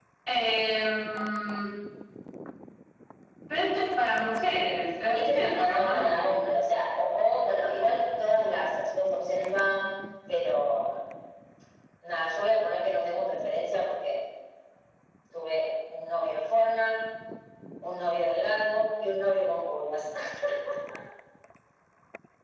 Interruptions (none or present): present